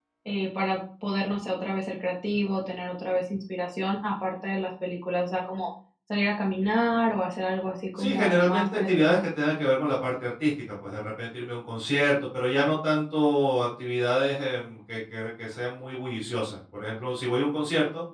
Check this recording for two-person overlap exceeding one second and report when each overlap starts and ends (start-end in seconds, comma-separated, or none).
8.0-9.2